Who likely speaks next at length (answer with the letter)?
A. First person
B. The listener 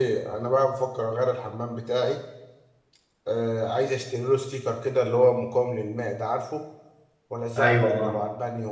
A